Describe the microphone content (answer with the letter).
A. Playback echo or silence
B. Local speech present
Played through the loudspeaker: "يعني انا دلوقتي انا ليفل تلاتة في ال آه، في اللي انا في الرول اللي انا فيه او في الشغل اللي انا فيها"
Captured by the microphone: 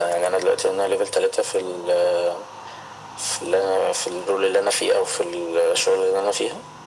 A